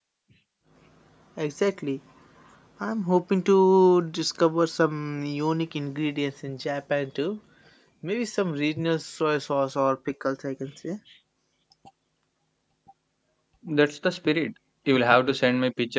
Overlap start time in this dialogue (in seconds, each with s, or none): none